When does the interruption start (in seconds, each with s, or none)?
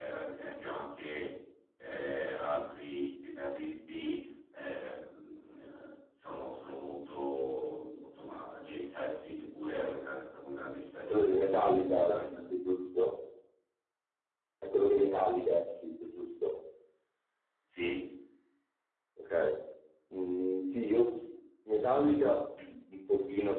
11.1 s